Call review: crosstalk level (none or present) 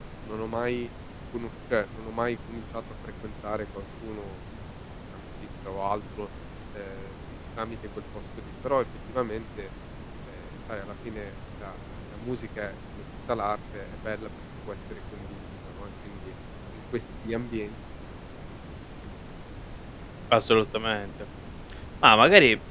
none